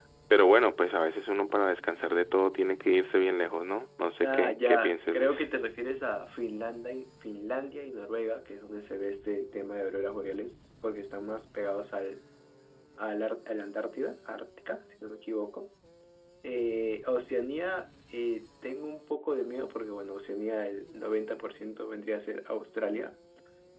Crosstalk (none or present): present